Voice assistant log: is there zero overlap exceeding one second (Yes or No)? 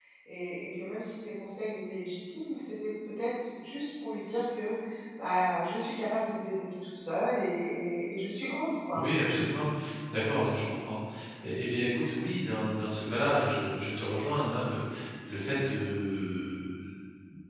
Yes